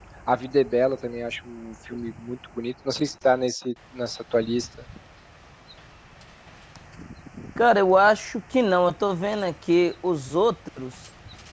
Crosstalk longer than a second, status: none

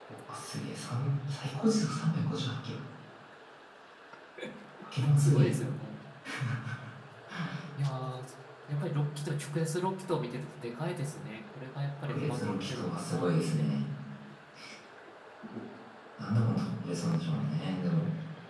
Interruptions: present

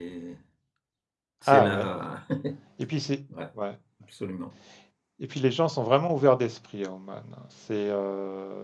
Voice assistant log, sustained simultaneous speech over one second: none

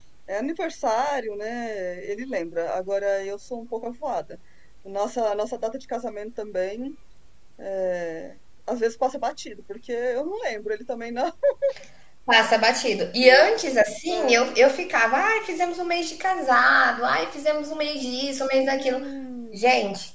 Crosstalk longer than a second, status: none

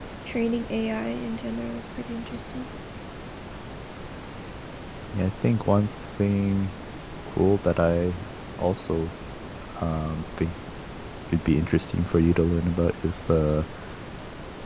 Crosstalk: none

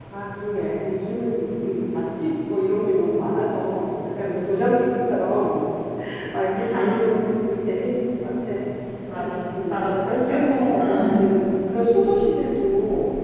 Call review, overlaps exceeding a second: present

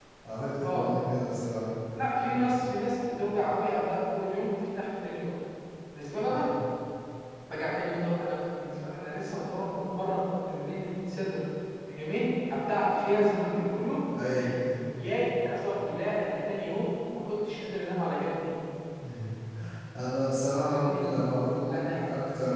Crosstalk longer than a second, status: none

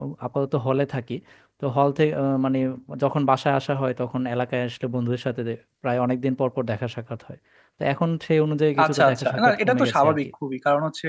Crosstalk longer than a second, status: present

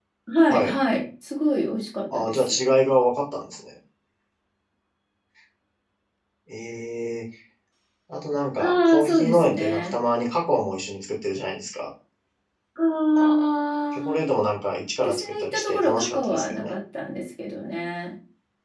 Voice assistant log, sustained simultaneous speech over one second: present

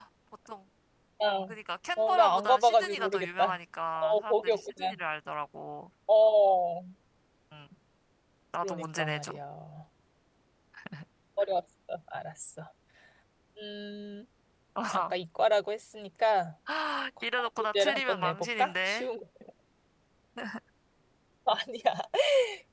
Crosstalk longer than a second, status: present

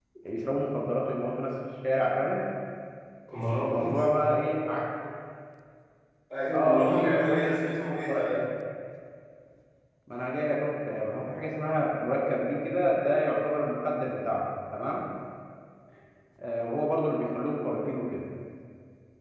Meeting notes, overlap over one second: present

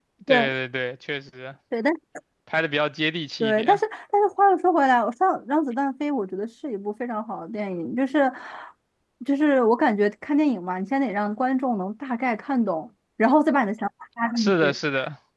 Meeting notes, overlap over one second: none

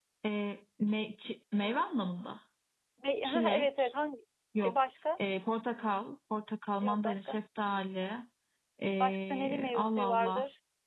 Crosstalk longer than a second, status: present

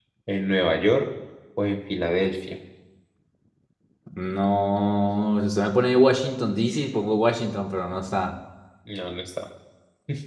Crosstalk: none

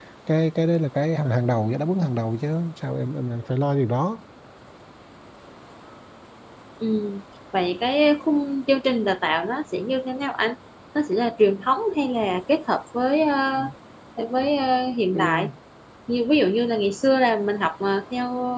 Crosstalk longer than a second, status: none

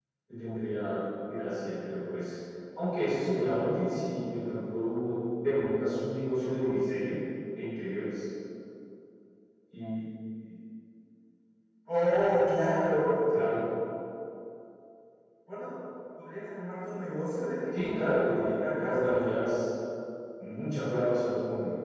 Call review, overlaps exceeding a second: present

